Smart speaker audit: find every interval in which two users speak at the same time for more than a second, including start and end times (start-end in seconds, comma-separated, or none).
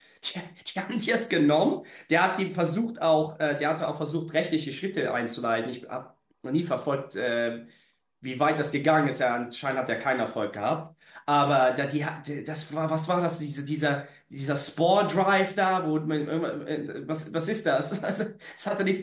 none